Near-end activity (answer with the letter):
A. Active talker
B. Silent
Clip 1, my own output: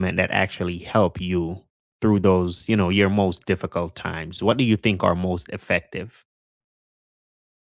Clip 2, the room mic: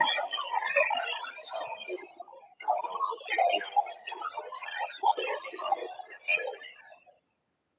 B